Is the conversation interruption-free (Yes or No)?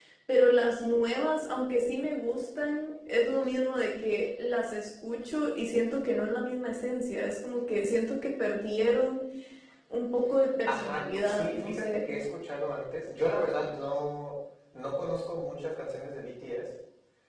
No